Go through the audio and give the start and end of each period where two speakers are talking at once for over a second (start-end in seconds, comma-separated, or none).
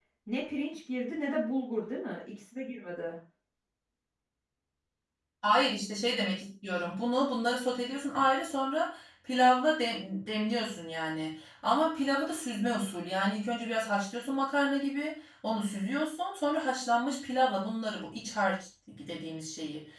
none